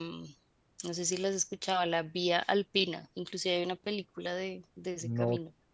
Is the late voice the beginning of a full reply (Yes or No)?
Yes